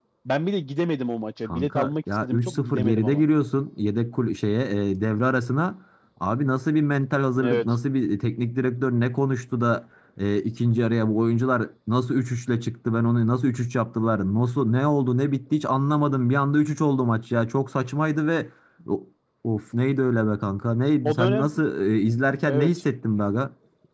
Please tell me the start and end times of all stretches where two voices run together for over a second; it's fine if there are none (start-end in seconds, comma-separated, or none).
1.4-3.2